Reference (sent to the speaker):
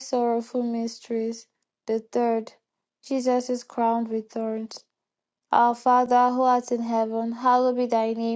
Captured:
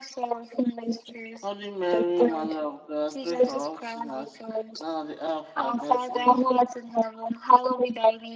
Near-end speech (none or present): present